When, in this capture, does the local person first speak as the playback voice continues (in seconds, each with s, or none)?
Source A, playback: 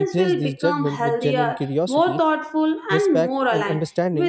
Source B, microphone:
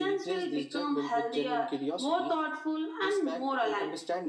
none